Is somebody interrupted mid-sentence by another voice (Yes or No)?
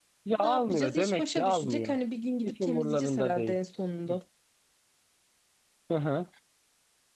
Yes